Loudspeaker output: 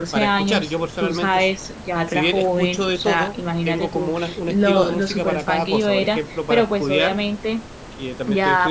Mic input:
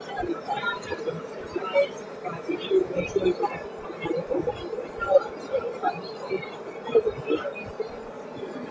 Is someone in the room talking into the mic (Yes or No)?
No